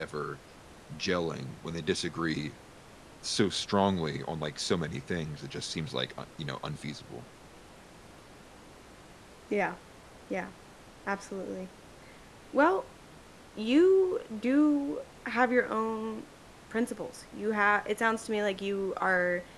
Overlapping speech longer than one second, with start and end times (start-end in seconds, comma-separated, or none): none